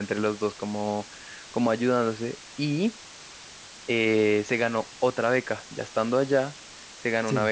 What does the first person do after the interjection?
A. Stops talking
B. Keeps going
B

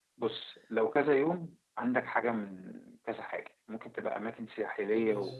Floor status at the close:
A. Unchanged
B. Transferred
A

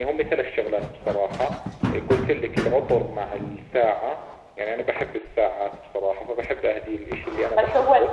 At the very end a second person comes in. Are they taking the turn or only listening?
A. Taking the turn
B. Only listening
A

